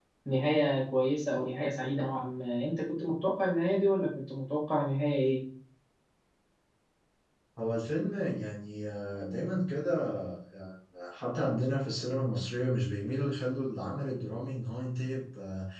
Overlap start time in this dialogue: none

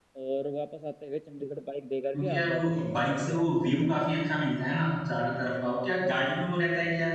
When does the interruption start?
2.1 s

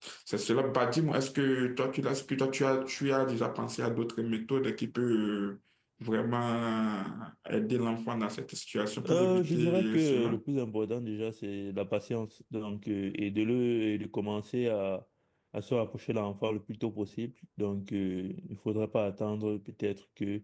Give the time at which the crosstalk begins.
9.0 s

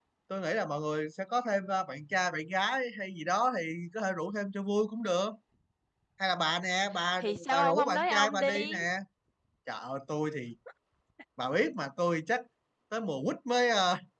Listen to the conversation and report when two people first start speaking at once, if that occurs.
7.2 s

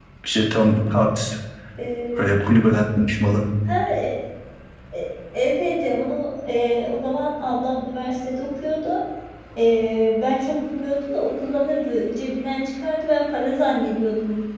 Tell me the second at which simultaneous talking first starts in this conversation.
none

